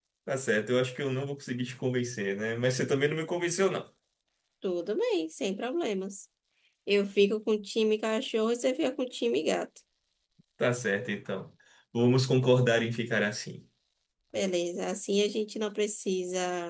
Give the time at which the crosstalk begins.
none

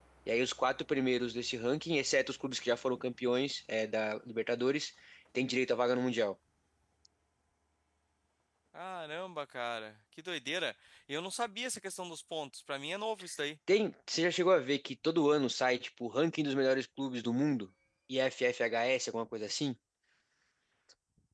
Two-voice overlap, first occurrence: none

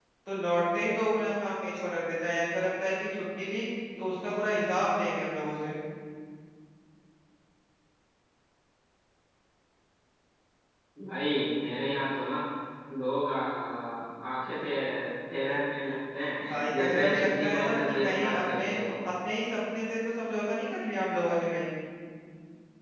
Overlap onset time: 16.4 s

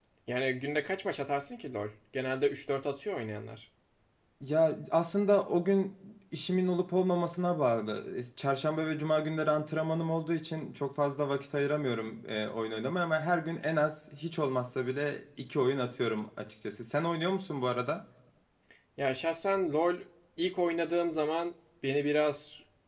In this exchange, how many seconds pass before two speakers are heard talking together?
none

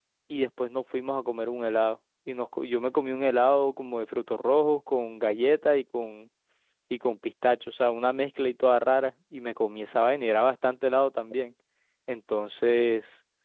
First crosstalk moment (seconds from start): none

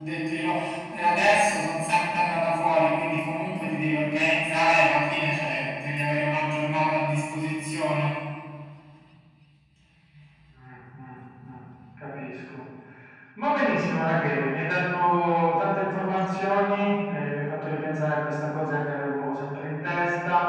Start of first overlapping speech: none

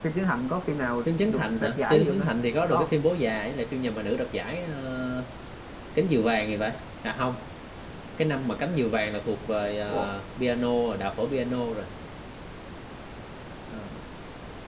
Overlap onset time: 1.0 s

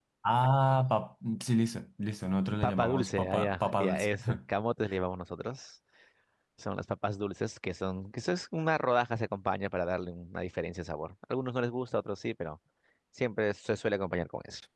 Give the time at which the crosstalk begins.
2.6 s

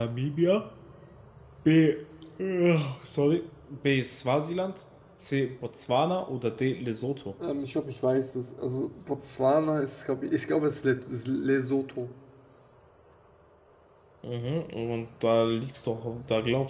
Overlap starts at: none

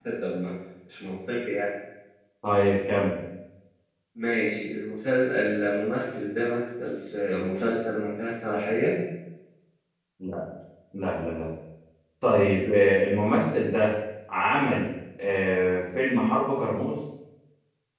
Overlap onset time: none

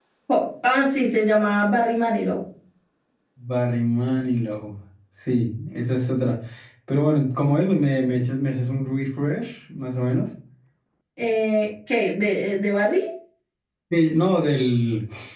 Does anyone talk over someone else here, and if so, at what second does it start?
none

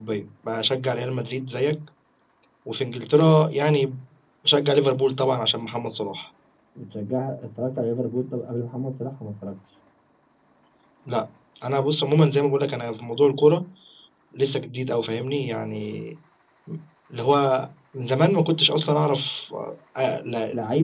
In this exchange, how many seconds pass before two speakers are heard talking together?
none

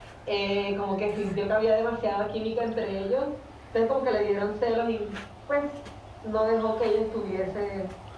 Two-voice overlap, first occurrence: none

